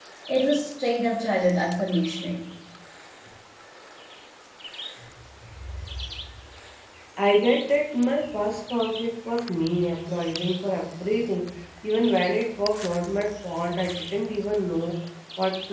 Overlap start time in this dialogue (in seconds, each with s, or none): none